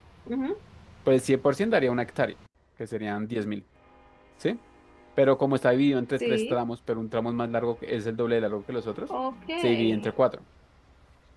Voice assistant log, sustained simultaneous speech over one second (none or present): none